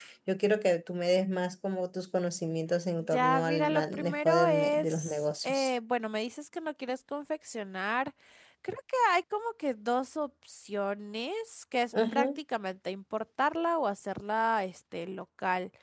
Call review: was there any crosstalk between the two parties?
Yes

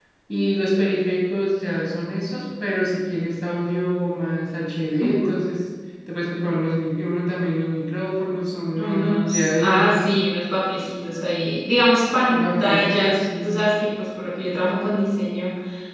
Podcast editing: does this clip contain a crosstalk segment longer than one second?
Yes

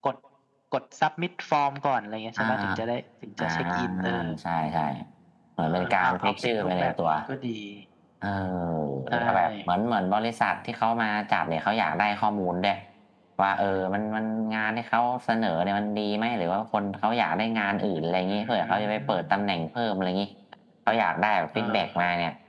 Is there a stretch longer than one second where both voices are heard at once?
Yes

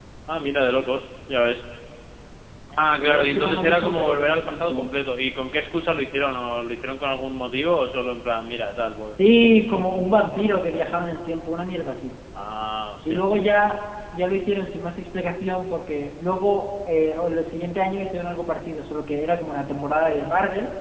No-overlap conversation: No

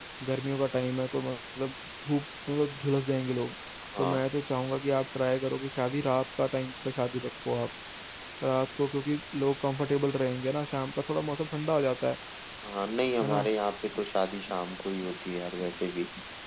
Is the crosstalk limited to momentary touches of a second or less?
Yes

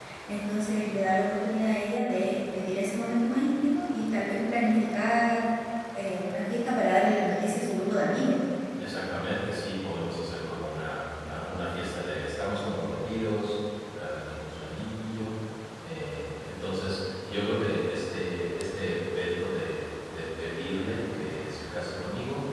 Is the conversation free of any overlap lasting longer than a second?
Yes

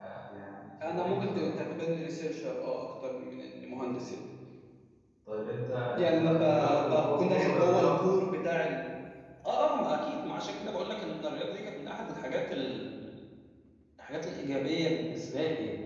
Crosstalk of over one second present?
Yes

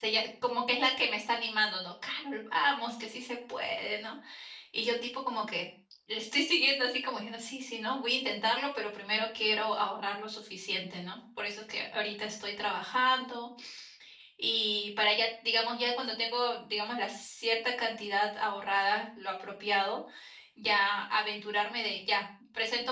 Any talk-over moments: No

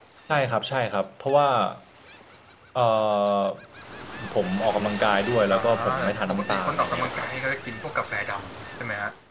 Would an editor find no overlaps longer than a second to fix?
No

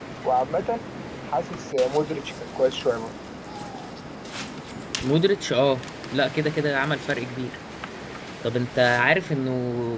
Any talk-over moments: No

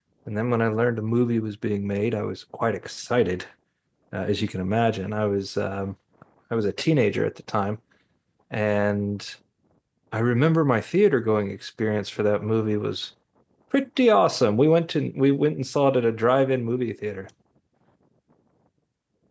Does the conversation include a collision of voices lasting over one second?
No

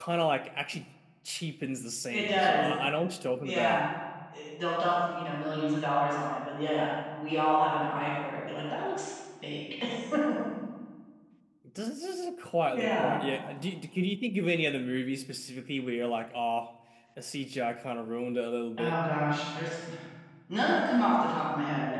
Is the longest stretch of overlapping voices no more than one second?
Yes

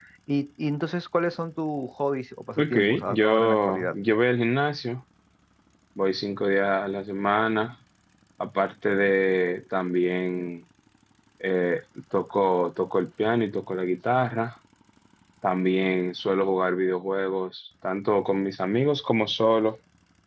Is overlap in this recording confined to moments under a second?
No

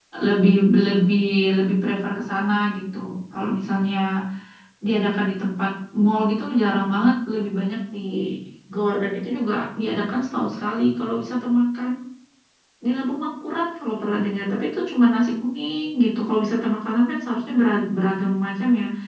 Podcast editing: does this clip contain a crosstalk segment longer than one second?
No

